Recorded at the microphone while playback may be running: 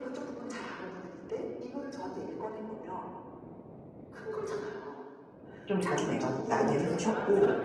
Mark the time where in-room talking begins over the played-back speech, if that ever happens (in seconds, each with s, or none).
5.7 s